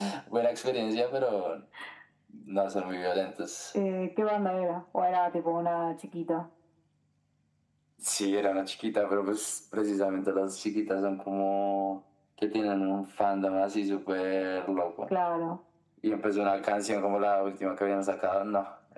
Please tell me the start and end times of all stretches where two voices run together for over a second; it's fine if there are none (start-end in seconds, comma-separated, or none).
none